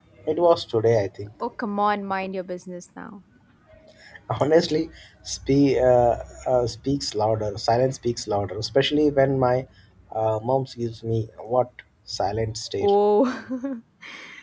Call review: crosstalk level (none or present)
none